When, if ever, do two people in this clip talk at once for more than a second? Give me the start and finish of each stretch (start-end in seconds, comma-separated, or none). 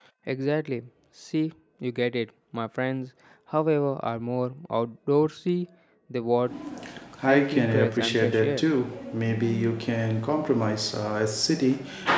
7.2-8.7